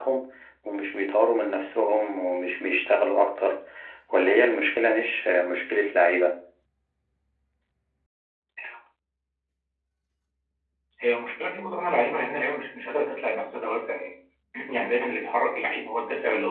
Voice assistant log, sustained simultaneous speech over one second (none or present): none